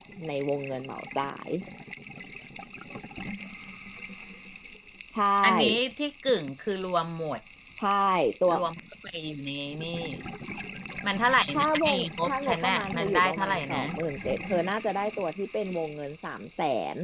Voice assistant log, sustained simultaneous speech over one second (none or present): present